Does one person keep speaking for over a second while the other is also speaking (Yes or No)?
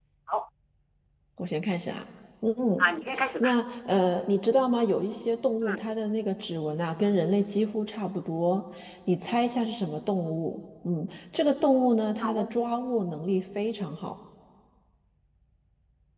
No